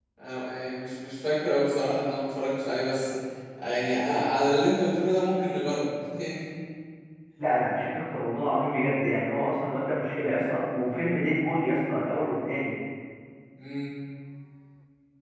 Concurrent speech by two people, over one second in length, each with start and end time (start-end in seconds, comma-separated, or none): none